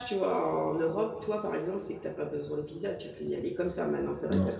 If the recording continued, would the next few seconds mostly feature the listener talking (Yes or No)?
No